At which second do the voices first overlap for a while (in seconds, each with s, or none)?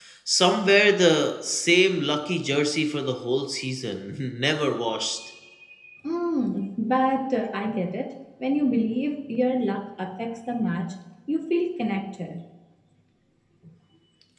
none